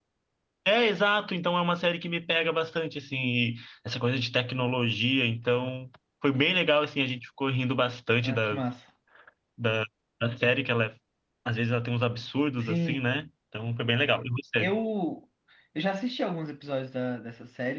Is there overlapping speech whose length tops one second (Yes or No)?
No